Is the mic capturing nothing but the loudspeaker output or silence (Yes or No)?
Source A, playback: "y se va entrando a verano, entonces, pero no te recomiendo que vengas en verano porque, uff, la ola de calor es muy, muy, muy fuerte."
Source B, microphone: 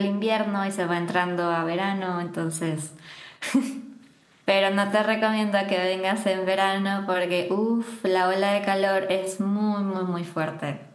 Yes